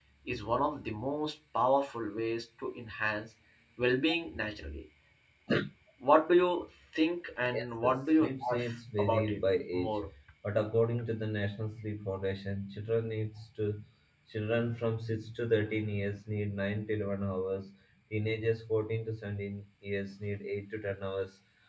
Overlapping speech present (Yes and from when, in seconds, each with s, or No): Yes, from 7.5 s